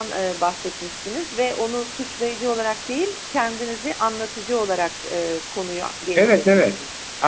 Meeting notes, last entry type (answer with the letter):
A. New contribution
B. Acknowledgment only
A